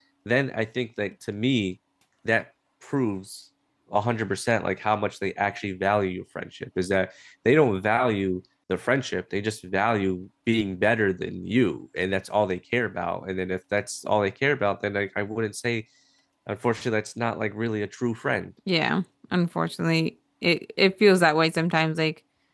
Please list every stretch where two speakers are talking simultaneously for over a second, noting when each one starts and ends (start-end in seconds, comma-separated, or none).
none